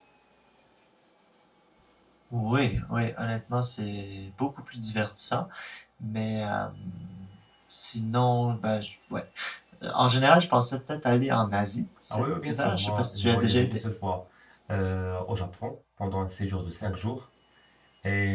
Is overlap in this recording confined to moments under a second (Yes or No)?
No